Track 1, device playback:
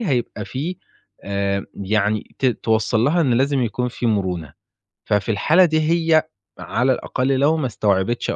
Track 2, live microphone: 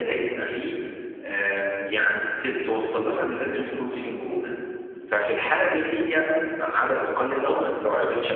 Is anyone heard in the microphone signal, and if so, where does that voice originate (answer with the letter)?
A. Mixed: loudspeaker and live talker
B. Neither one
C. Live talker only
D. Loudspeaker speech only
A